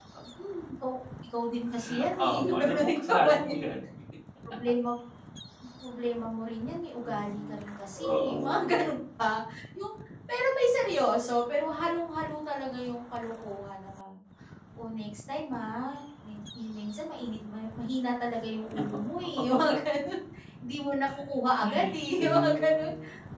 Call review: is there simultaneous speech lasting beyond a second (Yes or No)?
Yes